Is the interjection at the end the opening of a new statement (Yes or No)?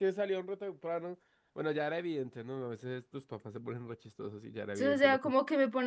Yes